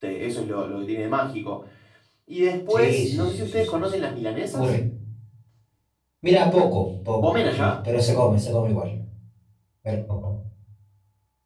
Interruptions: present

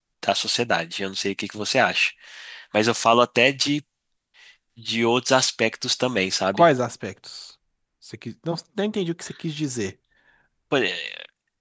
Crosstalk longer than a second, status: none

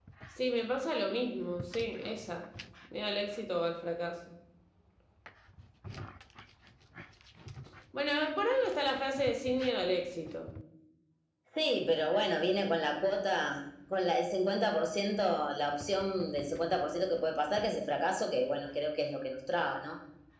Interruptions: none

